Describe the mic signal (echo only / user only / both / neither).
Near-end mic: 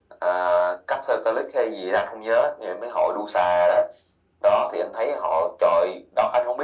echo only